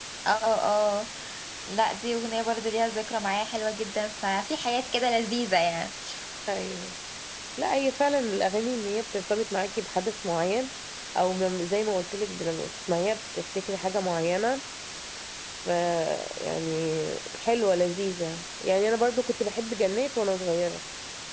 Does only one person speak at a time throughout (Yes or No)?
Yes